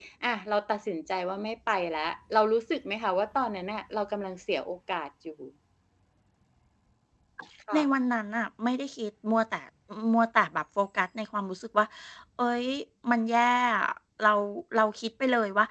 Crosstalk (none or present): none